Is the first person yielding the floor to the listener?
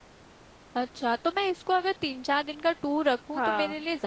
No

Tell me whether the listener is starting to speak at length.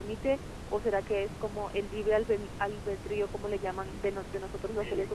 No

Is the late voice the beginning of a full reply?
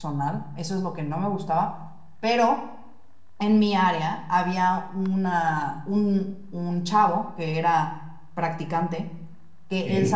No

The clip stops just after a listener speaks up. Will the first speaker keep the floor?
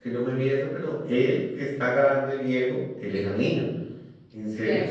Yes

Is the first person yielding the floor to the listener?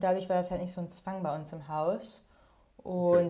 No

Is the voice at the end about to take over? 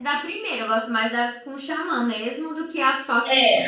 Yes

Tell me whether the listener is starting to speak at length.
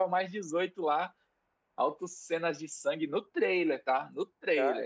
Yes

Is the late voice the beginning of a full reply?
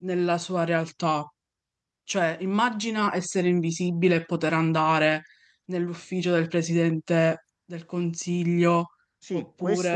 Yes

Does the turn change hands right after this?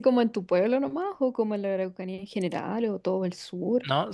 Yes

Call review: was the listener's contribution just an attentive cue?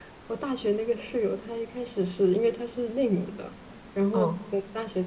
Yes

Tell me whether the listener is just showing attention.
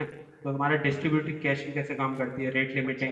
No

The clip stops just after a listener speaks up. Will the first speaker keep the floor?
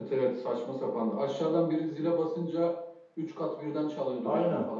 No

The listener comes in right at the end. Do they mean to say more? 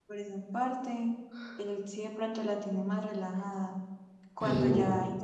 No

